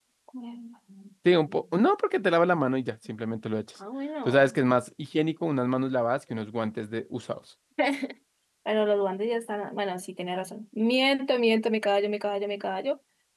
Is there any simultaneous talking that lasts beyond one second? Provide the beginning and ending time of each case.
none

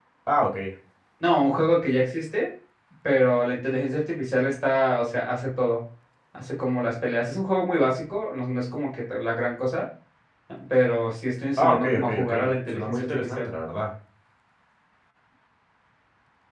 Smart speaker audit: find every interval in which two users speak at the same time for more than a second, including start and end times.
11.6-13.5

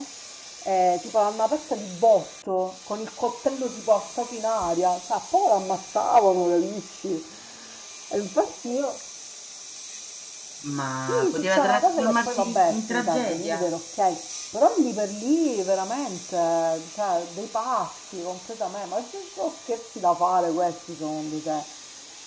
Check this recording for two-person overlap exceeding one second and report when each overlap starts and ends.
11.0-13.7

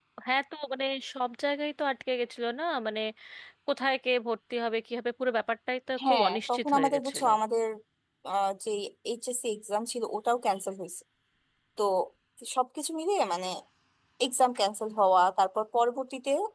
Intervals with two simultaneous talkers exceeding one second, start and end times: 6.0-7.3

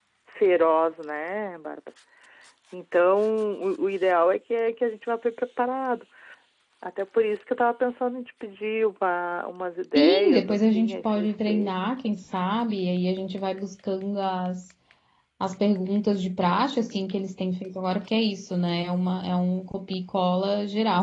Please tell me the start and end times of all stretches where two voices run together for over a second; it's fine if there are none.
9.9-11.7

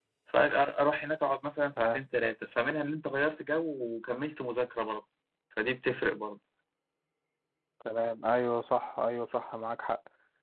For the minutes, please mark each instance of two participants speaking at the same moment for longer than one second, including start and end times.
none

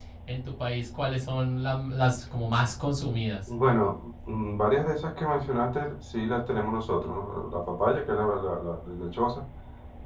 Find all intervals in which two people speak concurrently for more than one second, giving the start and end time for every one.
none

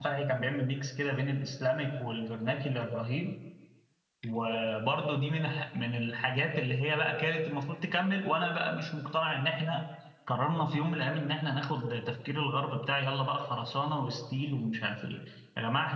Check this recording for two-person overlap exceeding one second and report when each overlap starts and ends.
none

